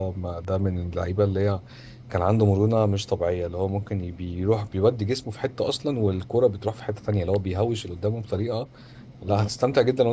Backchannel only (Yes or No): Yes